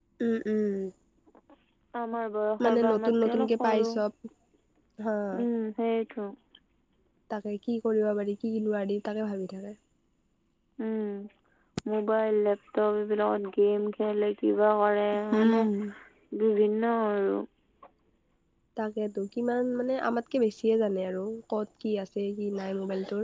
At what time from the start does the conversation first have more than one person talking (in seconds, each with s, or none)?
2.6 s